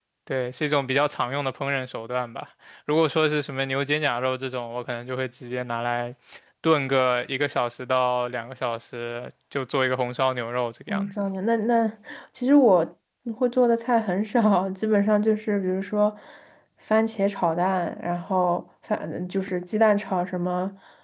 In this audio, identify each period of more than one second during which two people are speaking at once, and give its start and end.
none

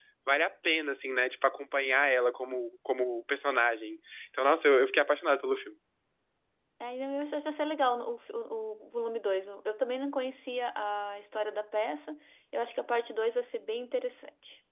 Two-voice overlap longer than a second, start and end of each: none

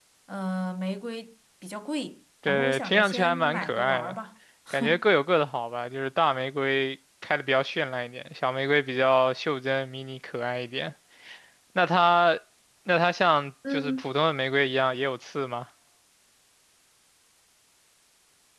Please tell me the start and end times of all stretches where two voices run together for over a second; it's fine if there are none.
2.5-4.2

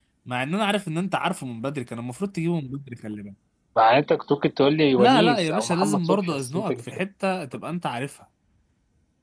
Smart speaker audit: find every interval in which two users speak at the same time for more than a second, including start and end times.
5.0-6.7

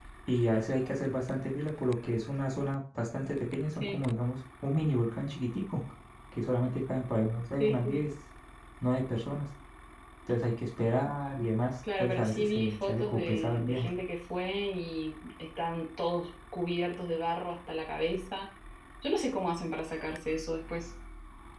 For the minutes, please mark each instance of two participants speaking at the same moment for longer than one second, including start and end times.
12.0-13.8

